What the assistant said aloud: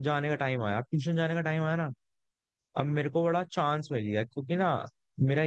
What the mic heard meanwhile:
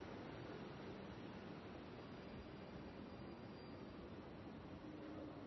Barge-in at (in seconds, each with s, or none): none